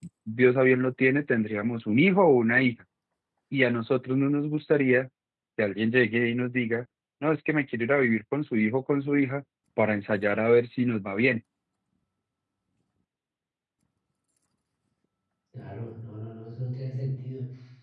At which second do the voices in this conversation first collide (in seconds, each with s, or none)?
none